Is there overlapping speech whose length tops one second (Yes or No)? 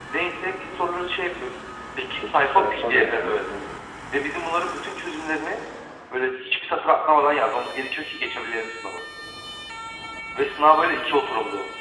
Yes